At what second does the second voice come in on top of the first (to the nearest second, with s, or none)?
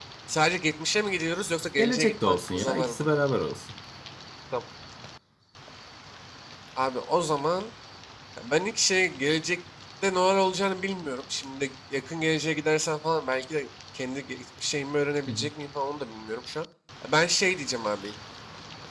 2 s